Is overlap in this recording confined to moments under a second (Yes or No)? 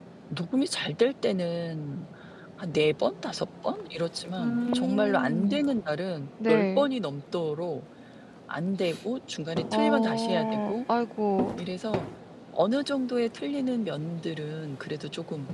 No